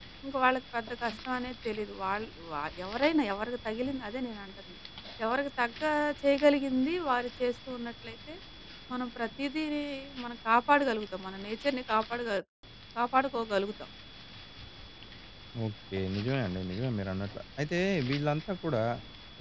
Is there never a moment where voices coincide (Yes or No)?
Yes